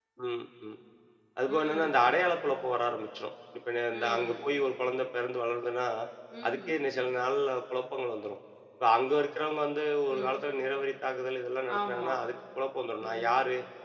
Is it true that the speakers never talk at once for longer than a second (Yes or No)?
Yes